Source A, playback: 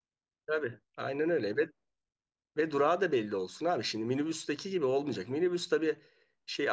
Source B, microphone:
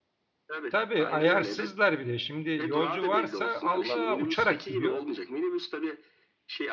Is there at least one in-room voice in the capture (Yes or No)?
Yes